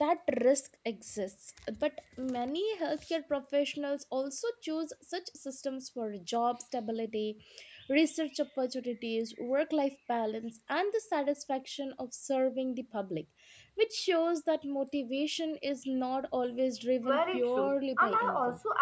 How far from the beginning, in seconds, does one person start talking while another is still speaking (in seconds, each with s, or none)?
17.0 s